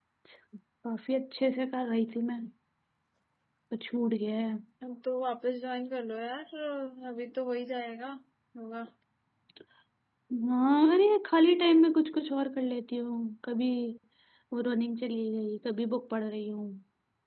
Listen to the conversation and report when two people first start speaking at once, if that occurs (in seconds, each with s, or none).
none